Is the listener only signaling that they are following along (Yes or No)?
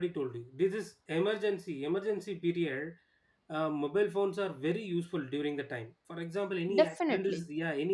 Yes